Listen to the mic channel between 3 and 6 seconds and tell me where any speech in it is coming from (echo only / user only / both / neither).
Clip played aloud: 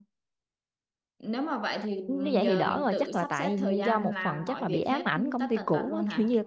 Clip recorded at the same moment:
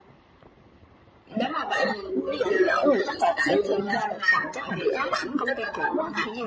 echo only